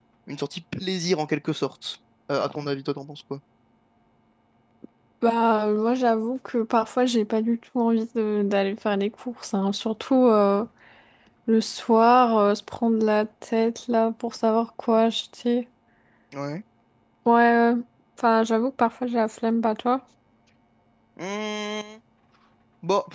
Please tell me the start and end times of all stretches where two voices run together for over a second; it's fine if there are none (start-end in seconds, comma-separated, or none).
none